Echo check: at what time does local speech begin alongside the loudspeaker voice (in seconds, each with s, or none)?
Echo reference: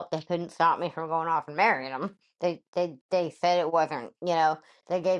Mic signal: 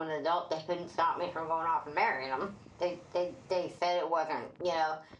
none